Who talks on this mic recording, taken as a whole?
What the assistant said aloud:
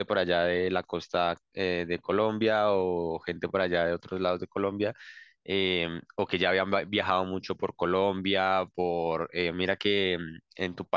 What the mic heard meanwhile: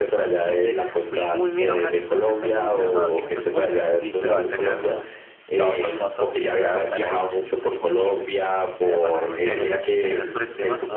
both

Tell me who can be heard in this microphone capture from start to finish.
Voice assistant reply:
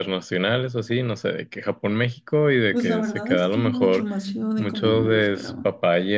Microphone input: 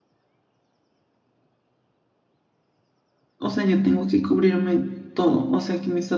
user only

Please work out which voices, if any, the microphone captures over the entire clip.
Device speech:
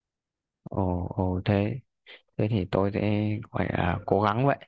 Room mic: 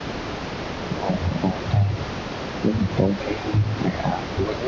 echo only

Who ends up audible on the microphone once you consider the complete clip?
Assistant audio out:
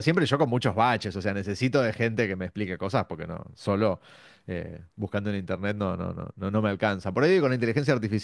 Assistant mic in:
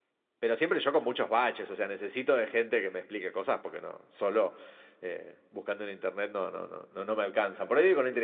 echo only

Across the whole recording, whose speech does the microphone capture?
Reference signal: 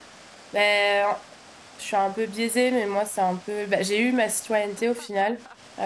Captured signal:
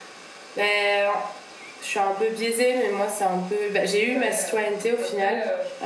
both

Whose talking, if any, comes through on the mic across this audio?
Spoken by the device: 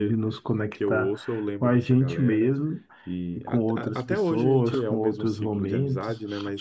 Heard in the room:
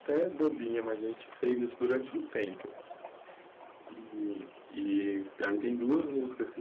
user only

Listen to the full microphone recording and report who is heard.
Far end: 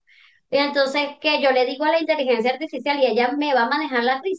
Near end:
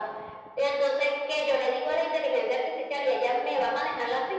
echo only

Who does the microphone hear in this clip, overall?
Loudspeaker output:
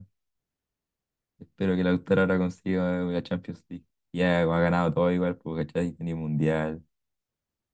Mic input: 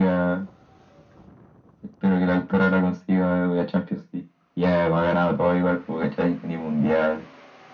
echo only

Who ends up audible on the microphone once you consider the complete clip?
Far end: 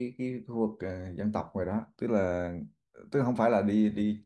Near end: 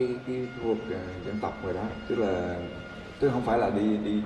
echo only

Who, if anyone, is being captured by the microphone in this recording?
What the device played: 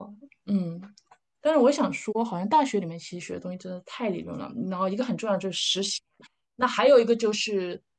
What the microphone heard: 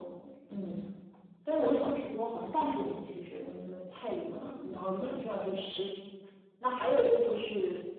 echo only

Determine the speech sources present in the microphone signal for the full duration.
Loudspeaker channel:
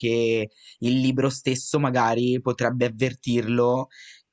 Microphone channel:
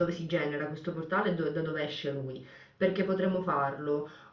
user only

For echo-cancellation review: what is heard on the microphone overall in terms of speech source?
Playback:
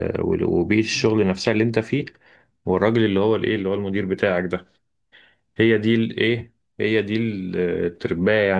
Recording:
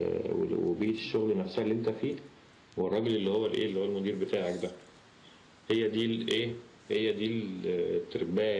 echo only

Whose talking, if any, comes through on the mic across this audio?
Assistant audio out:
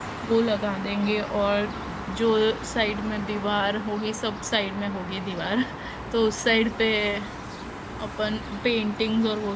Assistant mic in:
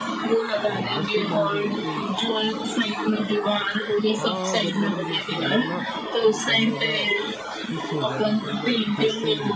both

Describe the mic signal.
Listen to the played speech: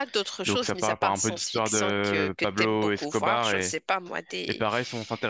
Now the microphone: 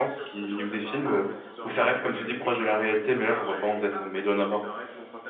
both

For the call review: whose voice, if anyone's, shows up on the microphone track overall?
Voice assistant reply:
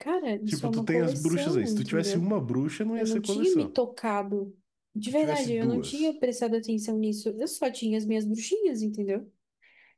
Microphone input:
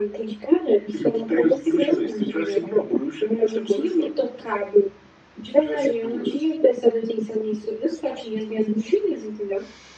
echo only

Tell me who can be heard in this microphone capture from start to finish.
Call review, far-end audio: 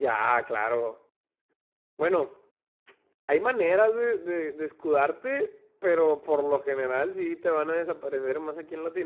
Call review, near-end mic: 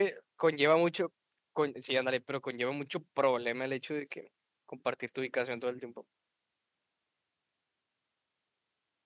user only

